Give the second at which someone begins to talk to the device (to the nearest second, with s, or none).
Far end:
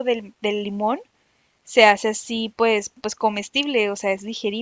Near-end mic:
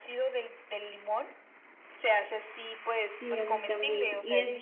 3 s